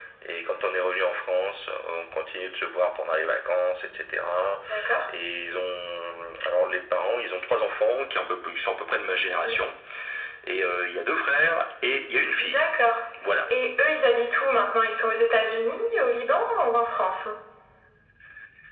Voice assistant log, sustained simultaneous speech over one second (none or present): none